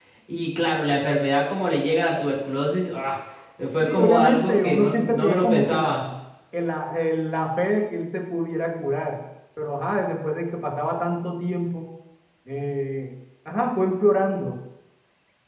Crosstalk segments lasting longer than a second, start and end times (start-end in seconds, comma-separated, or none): 3.8-6.0